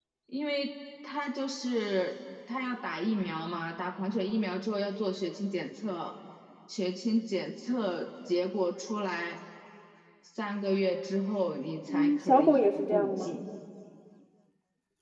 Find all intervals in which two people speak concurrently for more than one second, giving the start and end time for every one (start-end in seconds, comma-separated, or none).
11.9-13.3